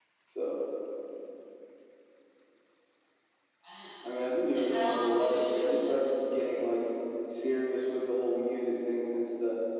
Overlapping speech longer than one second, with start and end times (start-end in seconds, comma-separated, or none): 4.5-6.0